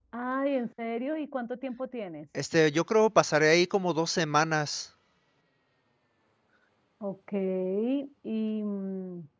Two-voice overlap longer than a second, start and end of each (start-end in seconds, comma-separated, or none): none